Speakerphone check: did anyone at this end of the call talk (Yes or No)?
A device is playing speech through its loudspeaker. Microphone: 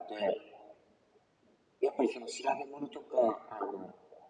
No